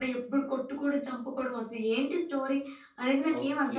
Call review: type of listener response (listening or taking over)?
taking over